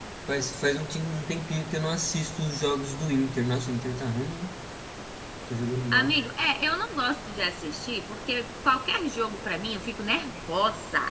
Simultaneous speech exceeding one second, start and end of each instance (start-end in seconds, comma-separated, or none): none